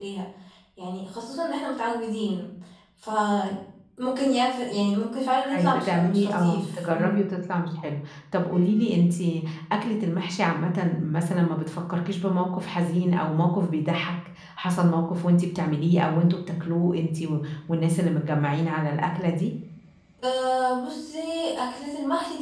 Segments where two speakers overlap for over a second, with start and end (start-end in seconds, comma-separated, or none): 5.5-7.2